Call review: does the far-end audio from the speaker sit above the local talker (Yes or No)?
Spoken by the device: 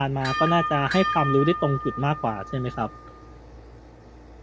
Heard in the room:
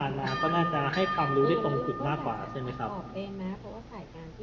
Yes